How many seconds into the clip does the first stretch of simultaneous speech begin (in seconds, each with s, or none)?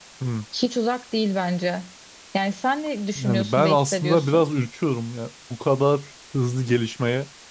3.1 s